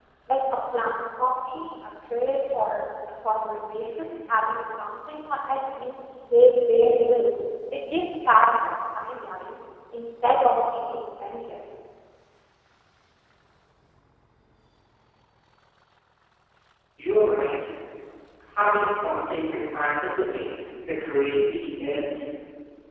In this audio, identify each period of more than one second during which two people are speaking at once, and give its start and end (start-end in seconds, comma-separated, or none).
none